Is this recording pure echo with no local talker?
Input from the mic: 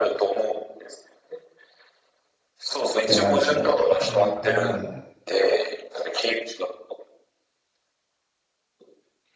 No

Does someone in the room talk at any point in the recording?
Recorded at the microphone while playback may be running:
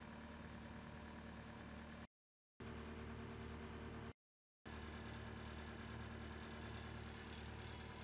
No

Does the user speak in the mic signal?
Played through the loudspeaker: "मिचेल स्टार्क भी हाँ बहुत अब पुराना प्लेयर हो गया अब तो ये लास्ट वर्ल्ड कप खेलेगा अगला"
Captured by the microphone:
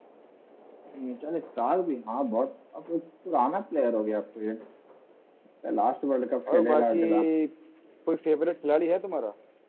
Yes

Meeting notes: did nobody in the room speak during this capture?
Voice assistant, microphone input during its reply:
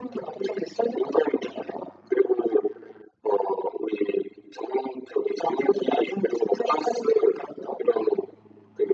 Yes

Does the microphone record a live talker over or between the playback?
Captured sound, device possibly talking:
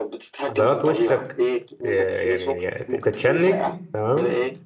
Yes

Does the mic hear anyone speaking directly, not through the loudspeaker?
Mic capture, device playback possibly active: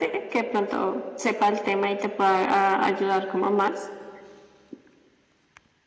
No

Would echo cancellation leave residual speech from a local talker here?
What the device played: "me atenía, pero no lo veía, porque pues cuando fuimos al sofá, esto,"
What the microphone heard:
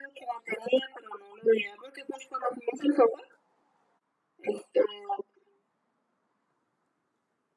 No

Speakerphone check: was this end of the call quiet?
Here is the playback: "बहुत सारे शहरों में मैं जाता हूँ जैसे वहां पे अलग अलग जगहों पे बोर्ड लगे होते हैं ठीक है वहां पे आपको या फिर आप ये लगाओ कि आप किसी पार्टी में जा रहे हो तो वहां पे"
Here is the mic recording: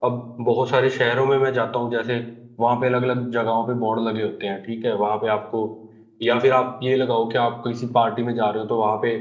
Yes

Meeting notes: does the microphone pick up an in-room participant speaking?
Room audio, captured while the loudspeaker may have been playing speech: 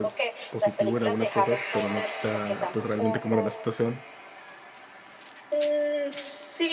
Yes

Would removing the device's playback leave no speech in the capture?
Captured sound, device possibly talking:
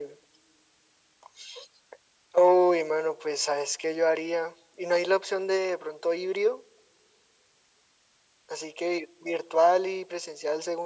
Yes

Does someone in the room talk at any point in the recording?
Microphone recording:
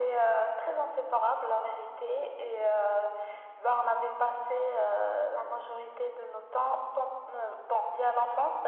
No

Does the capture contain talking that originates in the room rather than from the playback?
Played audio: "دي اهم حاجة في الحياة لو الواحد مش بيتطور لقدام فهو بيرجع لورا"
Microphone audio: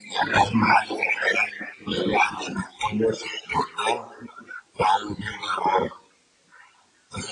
No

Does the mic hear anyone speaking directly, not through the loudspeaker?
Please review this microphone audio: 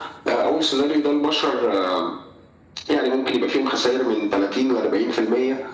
No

